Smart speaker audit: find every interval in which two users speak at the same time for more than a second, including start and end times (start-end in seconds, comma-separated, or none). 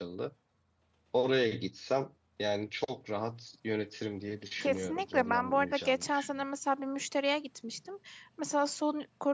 4.6-6.3